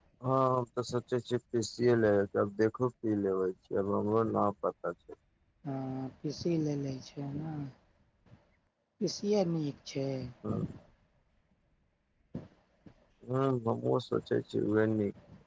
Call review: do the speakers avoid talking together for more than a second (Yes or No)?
Yes